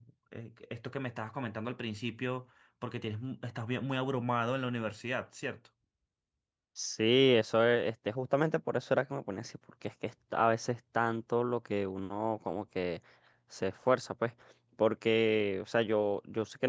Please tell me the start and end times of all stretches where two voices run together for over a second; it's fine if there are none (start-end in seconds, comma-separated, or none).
none